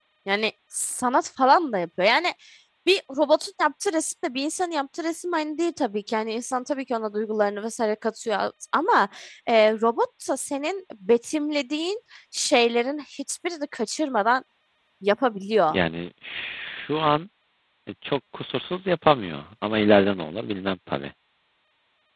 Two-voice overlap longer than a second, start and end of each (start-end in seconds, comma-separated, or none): none